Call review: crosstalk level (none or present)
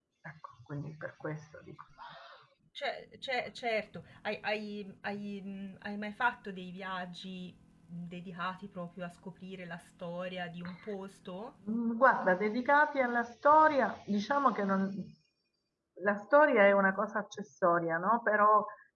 none